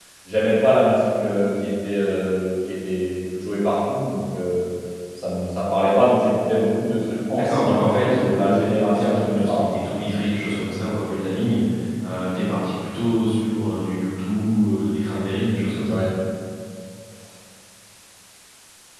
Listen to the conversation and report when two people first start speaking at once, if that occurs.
7.3 s

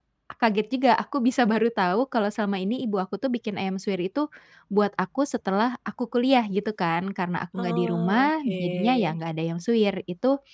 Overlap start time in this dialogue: 7.6 s

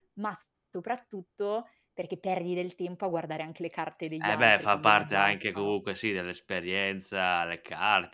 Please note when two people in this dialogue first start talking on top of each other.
4.2 s

